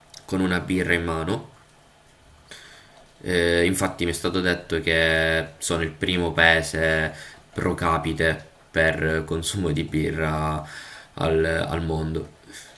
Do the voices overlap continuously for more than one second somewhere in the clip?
No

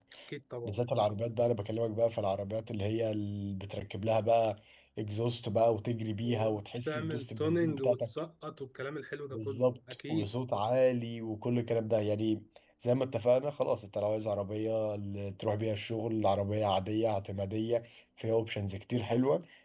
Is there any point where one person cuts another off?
Yes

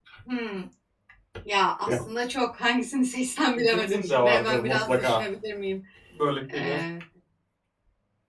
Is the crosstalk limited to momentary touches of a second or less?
No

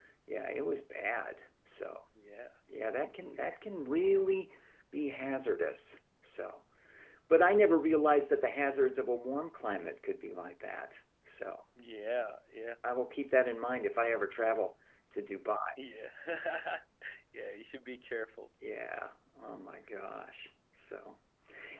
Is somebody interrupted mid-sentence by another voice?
No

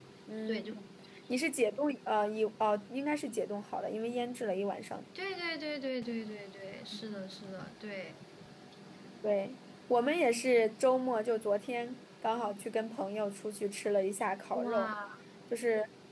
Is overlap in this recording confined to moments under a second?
Yes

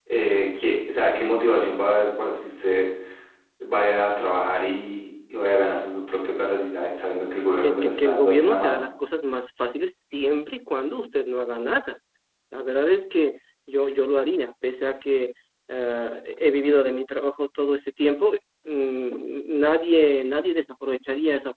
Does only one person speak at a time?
No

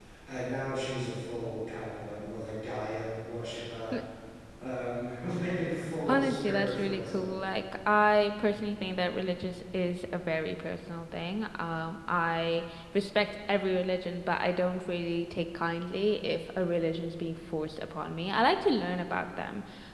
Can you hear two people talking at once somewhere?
Yes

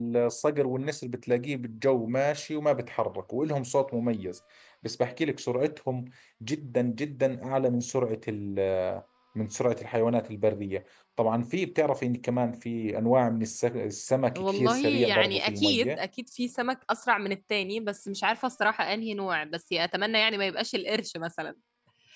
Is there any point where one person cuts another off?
Yes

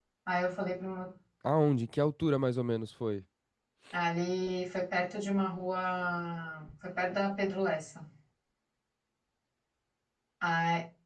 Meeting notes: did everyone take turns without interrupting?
Yes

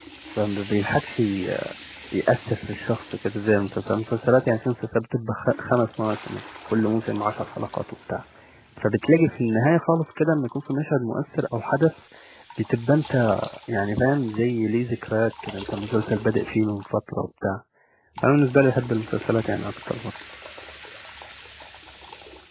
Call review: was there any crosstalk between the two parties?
No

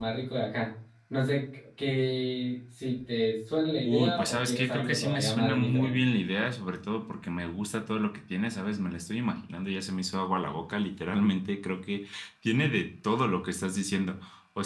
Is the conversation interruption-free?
No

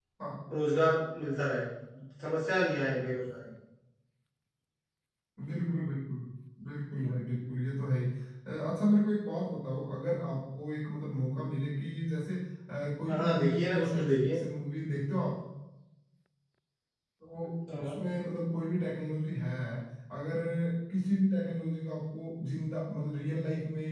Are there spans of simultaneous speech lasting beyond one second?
Yes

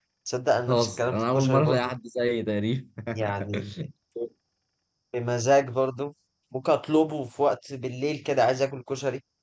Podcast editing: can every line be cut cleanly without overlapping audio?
No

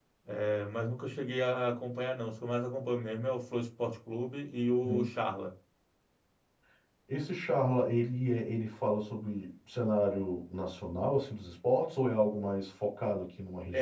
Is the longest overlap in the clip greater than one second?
No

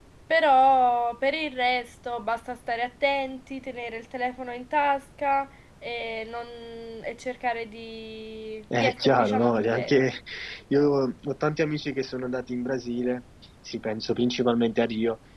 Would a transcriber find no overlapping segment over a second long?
No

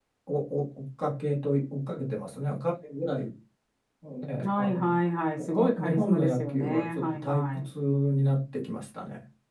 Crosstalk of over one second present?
Yes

